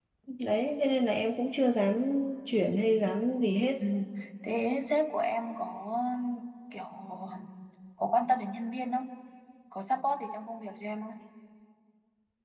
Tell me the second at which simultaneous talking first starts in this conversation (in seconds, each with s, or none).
none